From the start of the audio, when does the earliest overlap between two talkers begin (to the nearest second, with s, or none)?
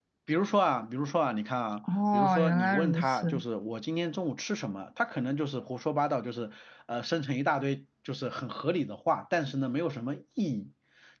2 s